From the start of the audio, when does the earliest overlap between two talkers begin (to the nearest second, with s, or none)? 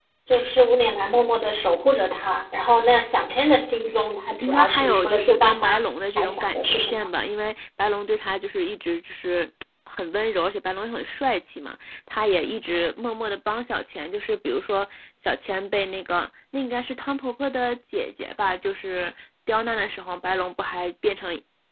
4 s